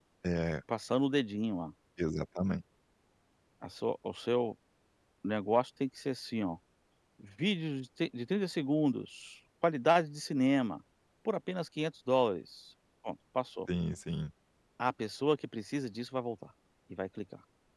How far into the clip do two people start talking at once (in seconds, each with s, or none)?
none